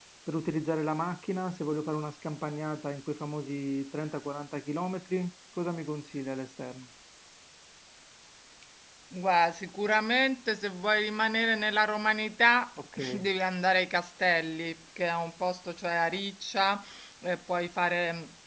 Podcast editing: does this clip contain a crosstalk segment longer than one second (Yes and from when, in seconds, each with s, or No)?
No